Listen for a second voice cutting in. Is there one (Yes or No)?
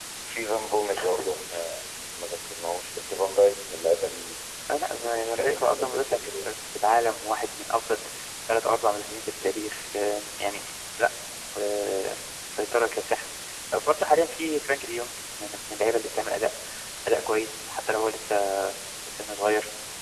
Yes